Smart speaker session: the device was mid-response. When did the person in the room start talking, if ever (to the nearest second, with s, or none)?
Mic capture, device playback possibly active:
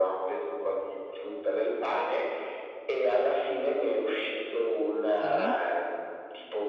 5 s